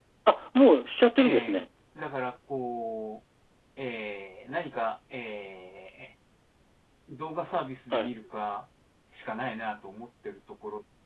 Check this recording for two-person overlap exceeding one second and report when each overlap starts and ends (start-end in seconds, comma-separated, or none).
none